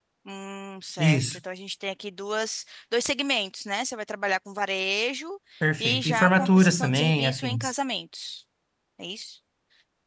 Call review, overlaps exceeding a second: present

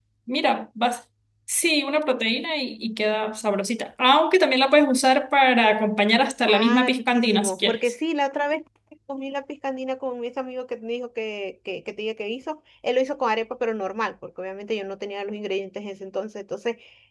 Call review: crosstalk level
present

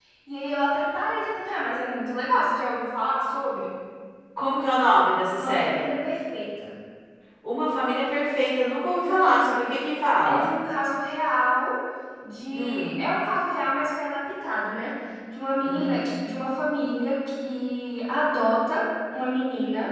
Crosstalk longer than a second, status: none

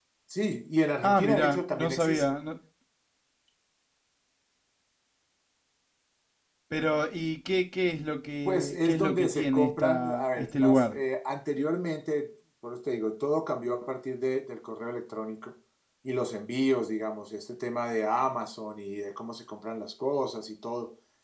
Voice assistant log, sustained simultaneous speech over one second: present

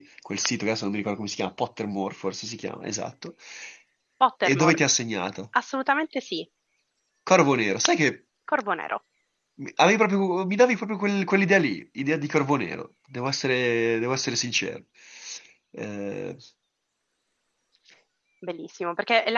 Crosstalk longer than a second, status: none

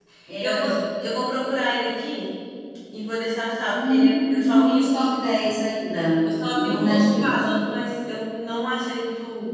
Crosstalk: present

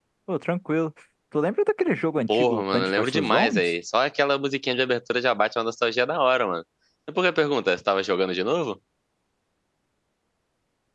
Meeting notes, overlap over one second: present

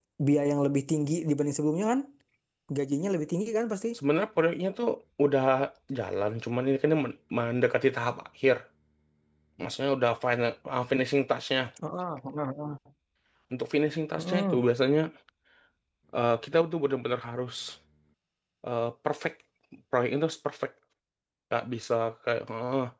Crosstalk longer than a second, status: none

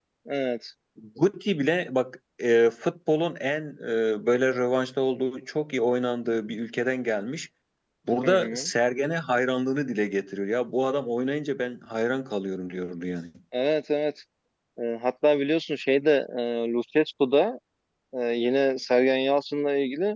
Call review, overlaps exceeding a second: none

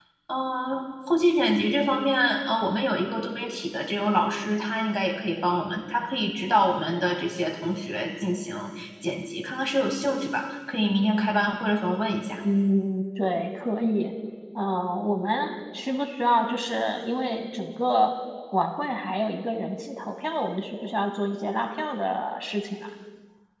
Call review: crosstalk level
none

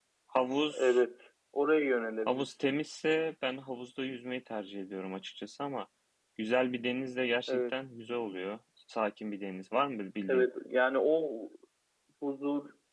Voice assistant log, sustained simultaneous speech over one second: none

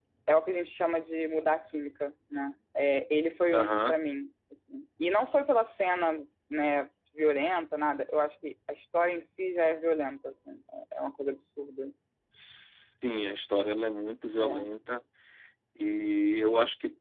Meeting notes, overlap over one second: none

